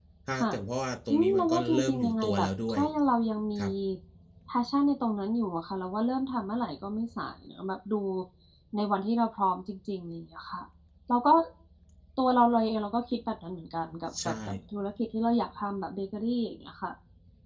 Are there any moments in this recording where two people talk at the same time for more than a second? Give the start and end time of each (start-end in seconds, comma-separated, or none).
1.1-2.8